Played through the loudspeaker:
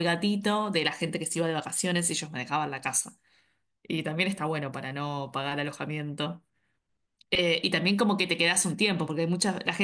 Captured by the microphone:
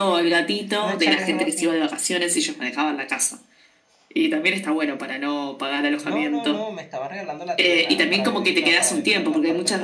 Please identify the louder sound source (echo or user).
echo